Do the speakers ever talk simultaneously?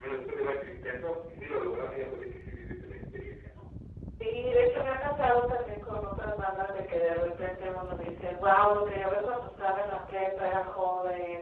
No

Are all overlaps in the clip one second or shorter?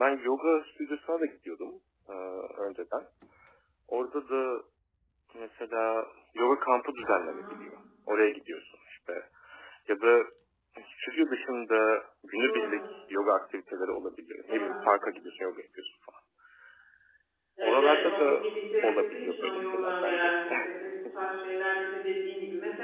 No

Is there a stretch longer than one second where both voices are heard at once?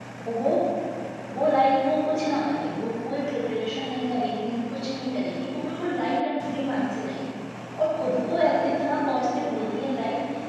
No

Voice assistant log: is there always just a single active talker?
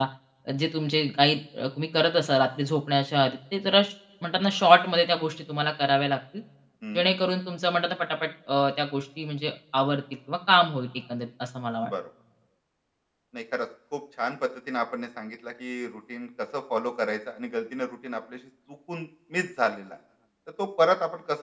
Yes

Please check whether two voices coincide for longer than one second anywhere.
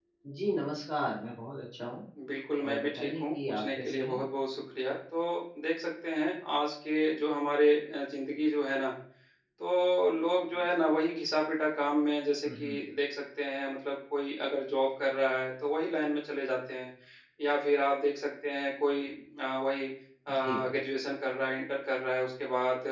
Yes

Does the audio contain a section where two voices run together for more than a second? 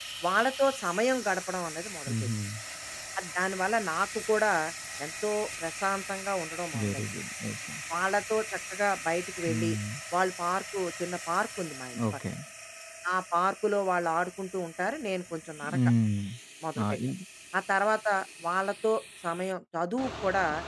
No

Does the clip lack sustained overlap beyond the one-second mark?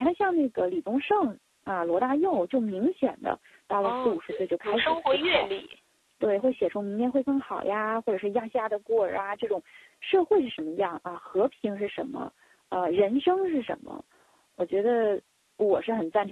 No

